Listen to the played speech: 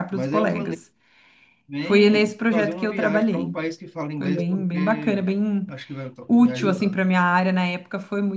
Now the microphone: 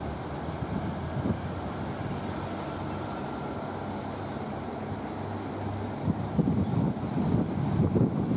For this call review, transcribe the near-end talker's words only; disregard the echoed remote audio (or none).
none